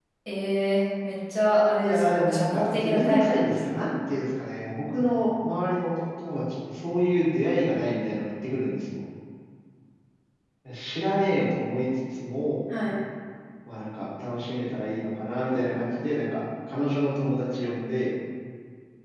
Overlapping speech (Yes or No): Yes